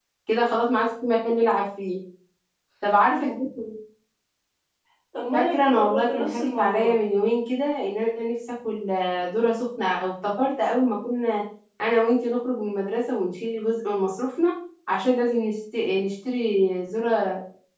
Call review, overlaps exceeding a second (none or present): present